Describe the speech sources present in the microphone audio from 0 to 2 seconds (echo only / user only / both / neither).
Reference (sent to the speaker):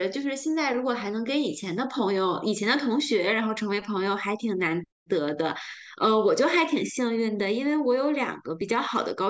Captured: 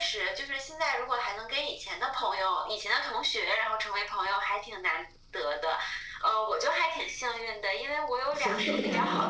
echo only